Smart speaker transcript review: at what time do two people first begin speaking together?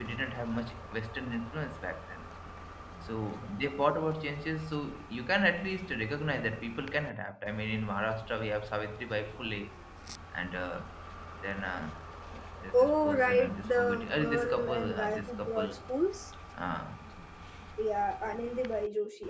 12.7 s

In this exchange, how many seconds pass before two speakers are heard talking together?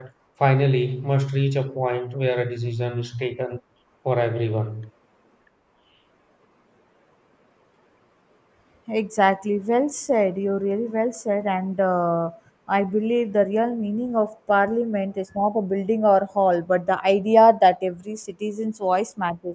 none

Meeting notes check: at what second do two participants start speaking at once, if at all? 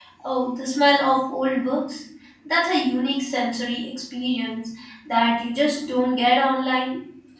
none

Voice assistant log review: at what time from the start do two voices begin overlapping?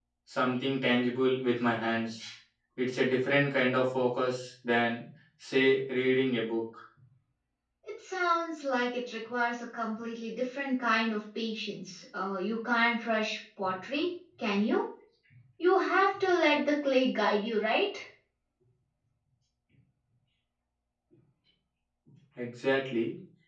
none

